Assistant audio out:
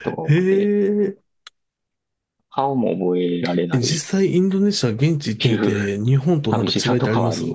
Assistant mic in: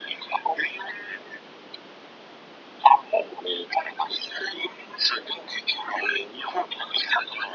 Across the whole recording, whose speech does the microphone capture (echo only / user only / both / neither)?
echo only